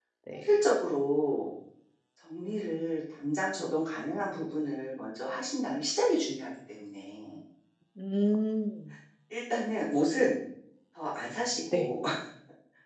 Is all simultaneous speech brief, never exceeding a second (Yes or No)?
Yes